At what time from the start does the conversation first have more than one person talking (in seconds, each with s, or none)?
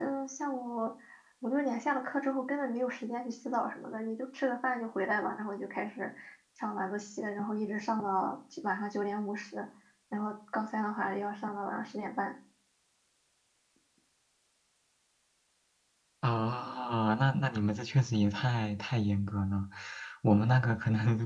none